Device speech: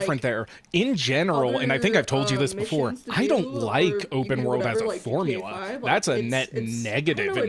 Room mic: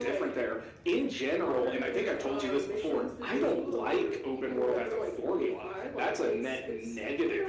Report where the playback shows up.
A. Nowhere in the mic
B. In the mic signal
B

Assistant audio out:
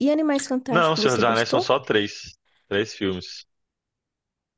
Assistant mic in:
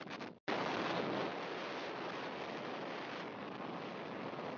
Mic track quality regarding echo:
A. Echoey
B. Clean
B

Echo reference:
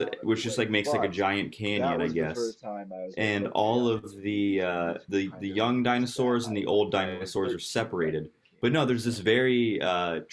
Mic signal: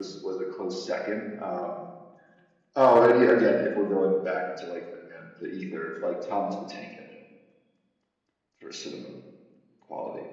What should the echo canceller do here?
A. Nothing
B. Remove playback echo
A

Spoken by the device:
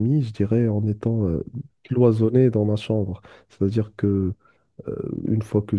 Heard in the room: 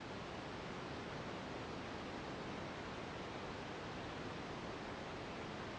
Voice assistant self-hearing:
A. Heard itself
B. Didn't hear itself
B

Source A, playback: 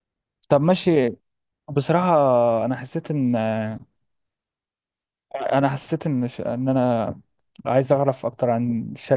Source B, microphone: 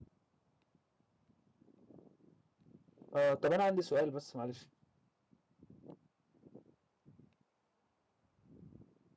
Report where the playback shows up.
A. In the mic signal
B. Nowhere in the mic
B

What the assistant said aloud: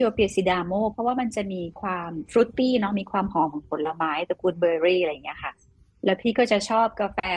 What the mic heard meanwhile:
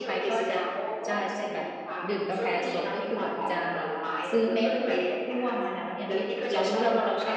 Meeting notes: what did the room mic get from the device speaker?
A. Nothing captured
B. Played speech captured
B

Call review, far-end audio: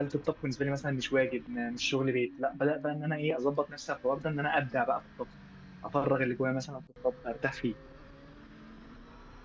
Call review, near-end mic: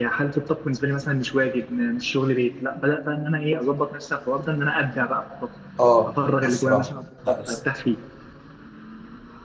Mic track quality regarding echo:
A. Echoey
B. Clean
A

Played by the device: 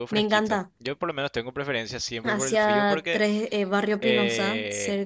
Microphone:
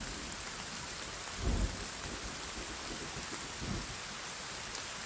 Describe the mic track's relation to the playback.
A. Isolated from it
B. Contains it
A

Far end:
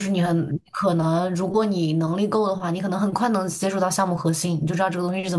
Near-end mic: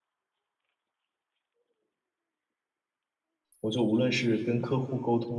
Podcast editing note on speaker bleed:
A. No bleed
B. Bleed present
A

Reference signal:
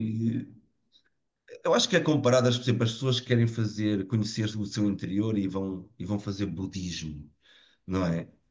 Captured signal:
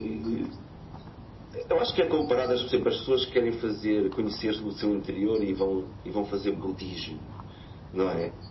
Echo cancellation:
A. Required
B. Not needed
A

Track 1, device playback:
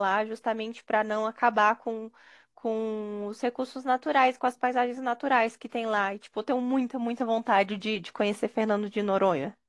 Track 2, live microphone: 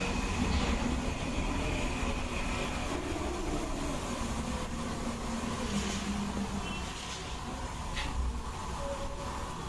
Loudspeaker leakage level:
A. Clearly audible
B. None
B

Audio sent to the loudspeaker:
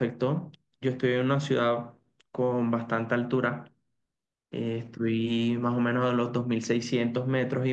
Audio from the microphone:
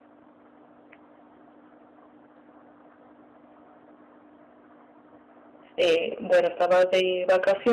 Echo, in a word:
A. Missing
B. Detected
A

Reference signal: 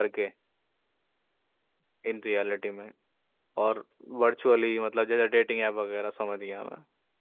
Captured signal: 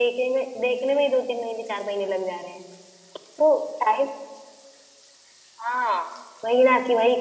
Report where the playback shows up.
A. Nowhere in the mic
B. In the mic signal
A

